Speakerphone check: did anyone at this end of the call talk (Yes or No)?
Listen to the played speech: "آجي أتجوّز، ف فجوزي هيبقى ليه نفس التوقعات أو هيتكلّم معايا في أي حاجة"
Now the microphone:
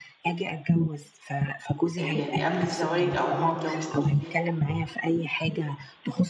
Yes